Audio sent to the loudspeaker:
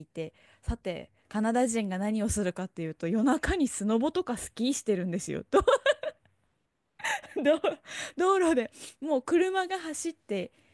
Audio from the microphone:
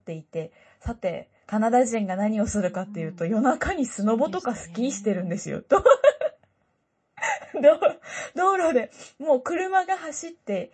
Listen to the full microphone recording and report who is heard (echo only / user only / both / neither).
both